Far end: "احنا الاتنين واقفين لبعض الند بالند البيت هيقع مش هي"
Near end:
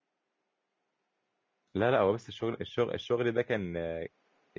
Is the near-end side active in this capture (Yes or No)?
Yes